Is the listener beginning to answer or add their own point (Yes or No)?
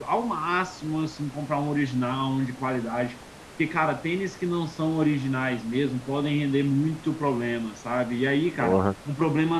No